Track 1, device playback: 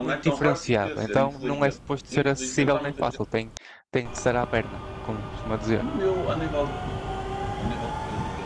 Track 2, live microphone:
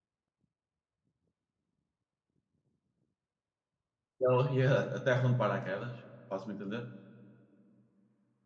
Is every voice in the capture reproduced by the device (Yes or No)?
No